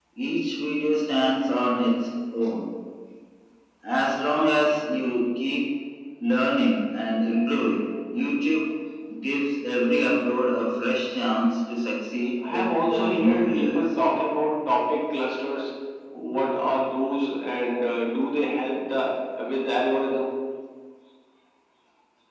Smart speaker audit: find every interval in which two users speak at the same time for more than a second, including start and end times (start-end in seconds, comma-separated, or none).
12.5-13.8